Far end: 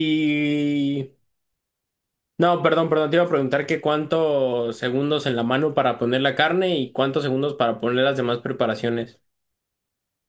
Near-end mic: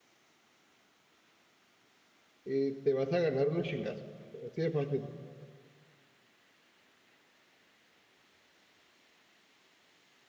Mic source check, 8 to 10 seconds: neither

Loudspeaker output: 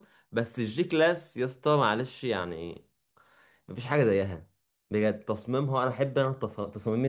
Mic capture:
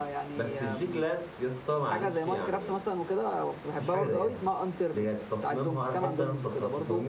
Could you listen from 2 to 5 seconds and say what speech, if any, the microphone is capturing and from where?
both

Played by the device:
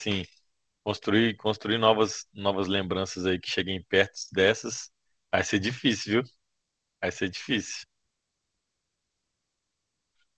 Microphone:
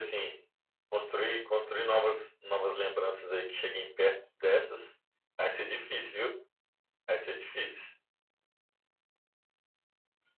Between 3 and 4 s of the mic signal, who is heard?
echo only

